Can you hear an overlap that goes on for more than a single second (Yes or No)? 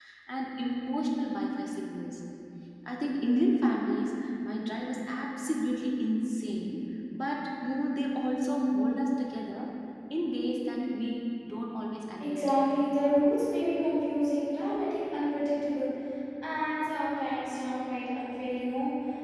No